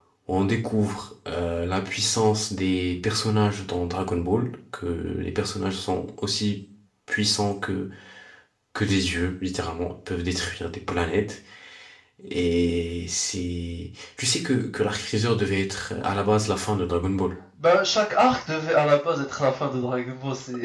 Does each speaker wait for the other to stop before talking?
Yes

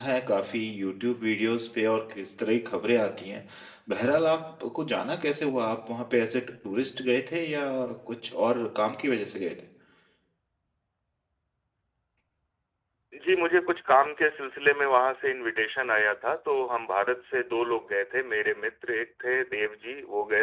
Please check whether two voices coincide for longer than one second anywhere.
No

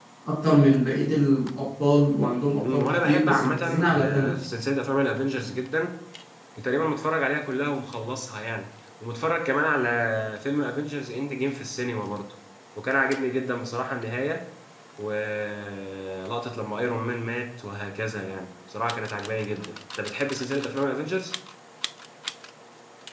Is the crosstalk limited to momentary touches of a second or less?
No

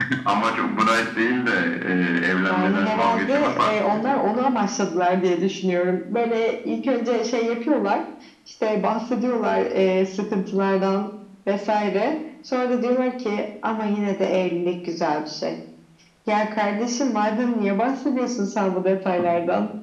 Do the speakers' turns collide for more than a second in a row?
Yes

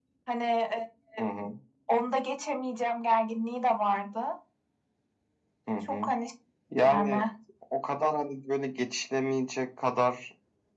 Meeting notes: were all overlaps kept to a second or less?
Yes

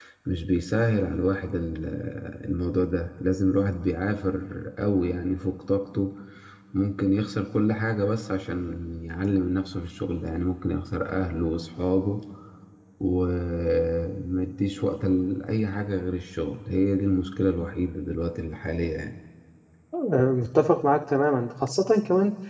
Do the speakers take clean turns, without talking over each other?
Yes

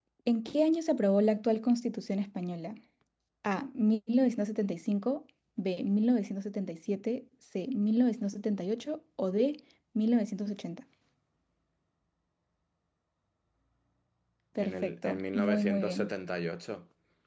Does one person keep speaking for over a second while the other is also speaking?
Yes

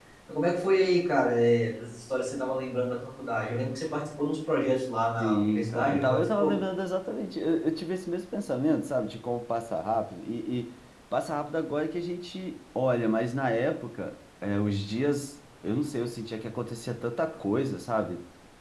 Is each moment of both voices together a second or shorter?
No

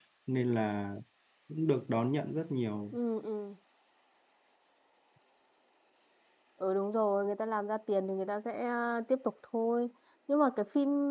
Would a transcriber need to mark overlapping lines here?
No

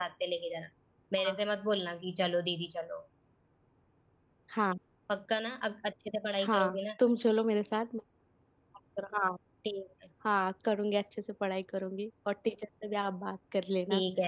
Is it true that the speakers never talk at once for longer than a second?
Yes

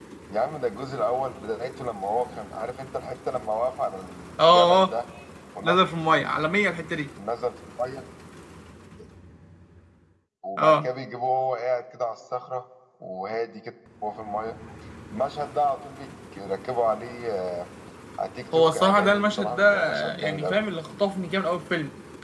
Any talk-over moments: Yes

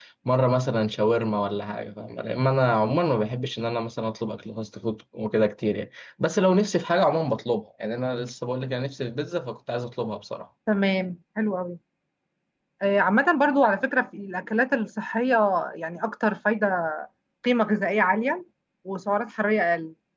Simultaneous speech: No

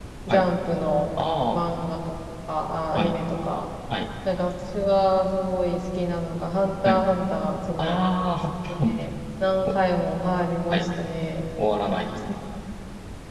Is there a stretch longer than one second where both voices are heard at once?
No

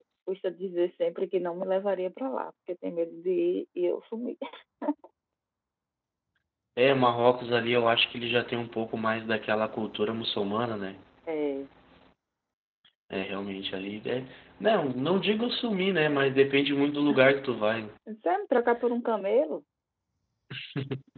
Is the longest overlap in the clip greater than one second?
No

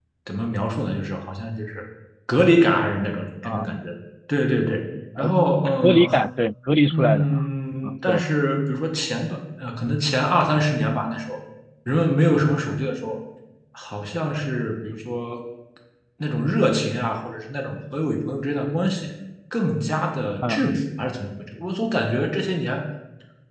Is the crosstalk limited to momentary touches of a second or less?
Yes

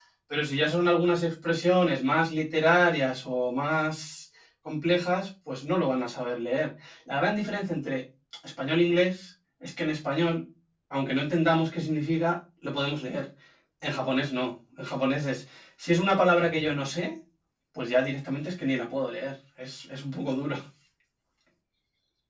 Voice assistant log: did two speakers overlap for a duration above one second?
No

